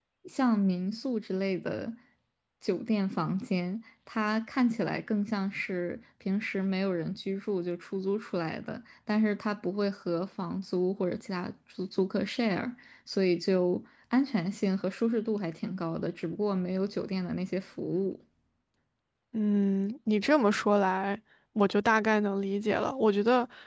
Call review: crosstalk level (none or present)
none